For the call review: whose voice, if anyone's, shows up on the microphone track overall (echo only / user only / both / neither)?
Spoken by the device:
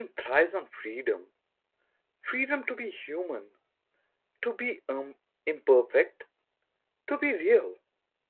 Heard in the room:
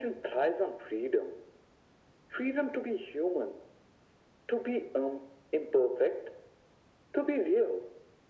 echo only